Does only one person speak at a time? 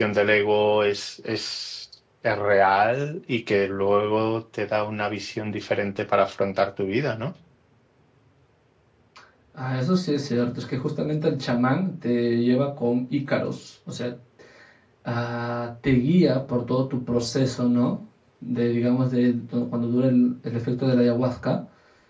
Yes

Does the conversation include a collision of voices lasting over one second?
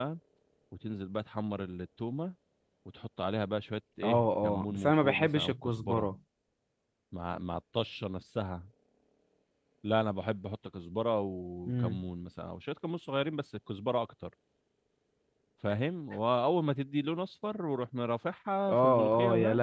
Yes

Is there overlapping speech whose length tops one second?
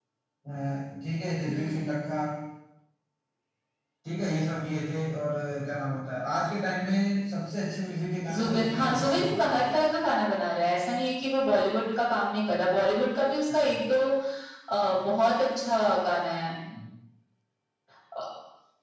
Yes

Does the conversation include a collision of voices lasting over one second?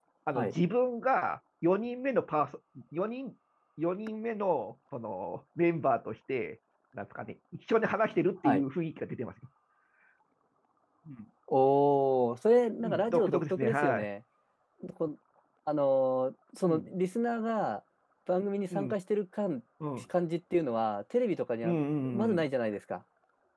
Yes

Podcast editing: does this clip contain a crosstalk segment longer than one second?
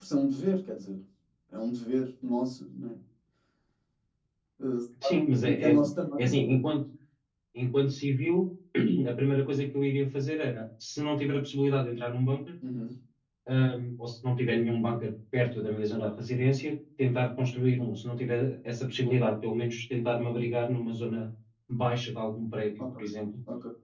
No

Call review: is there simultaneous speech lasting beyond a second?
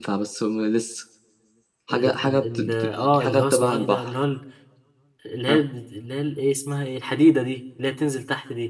Yes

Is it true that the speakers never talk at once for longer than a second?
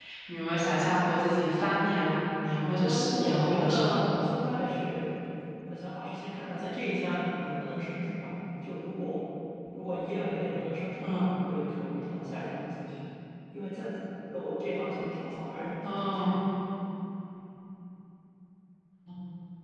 No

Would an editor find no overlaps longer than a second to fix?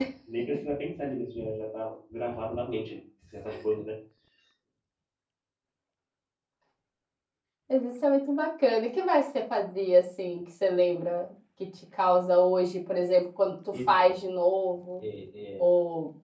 Yes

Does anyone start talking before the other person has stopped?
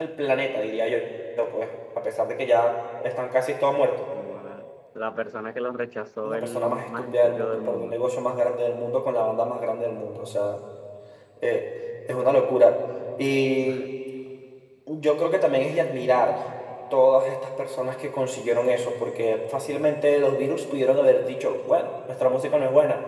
Yes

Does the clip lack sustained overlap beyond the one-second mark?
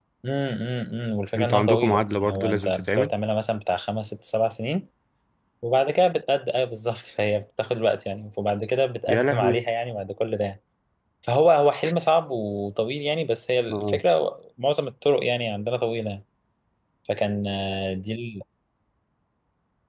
No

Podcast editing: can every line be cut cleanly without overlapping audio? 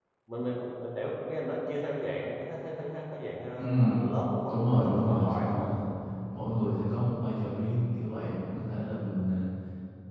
No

